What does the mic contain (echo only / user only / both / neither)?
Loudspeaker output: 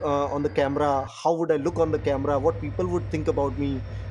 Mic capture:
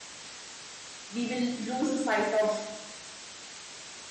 user only